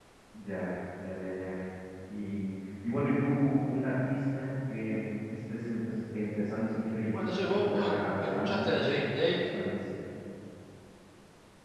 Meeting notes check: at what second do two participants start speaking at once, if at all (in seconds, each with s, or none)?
7.1 s